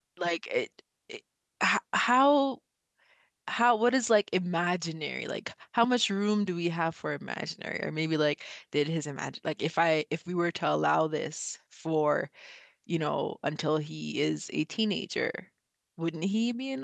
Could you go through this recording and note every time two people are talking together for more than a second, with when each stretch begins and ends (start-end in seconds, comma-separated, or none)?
none